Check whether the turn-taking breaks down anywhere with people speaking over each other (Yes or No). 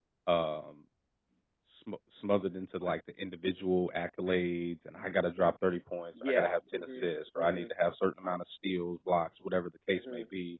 Yes